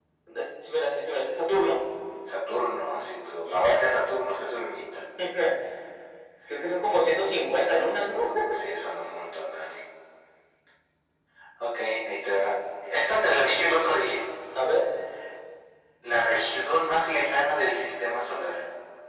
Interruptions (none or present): none